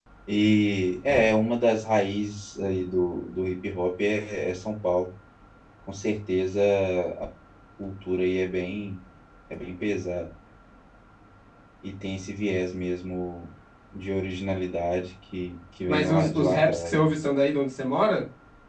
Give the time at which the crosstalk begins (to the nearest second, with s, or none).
16 s